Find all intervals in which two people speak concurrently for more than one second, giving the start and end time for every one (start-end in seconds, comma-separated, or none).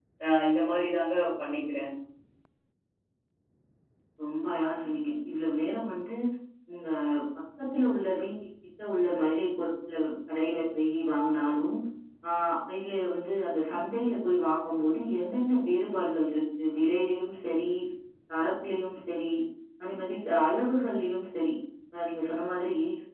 none